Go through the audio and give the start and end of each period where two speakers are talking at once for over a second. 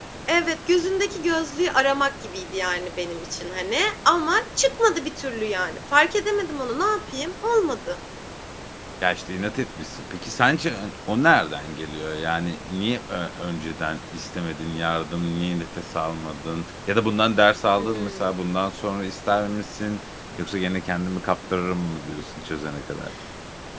none

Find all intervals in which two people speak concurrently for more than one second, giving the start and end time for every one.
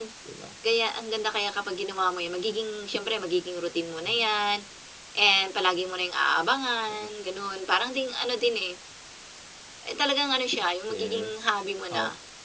none

